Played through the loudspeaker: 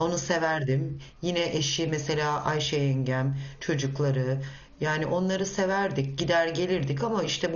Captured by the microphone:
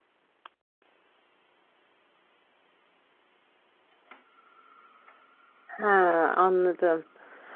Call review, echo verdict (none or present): none